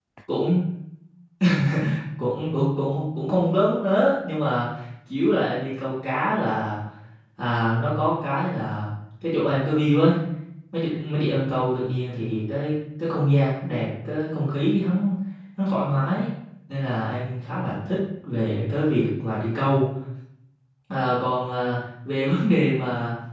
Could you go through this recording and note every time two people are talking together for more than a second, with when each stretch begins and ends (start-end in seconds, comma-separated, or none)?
none